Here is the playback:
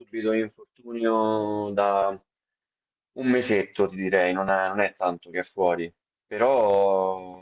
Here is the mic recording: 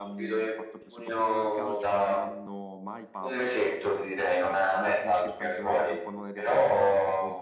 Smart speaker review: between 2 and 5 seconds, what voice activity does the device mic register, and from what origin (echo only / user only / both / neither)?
both